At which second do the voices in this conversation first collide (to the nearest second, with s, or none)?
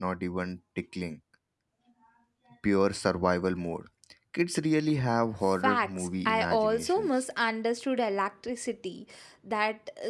6 s